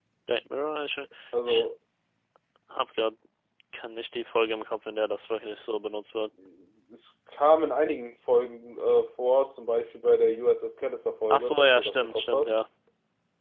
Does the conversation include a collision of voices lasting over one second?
Yes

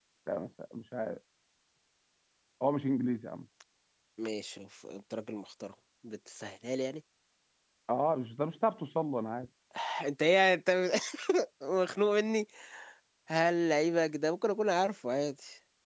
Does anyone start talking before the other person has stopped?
No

